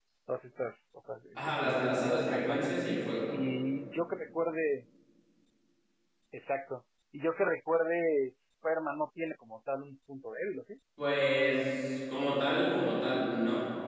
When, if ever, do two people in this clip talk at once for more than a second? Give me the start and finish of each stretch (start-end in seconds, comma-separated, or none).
1.4-2.7